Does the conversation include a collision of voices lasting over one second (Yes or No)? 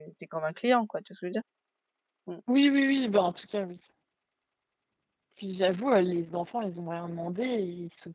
No